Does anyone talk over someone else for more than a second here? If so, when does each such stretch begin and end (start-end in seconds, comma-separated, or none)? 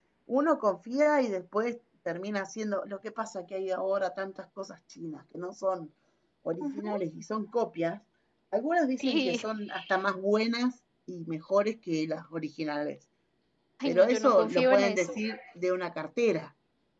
13.8-15.2